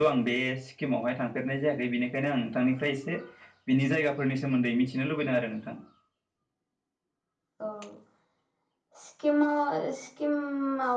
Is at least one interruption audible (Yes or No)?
No